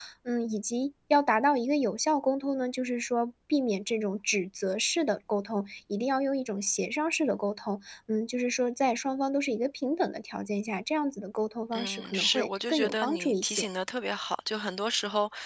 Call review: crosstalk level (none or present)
present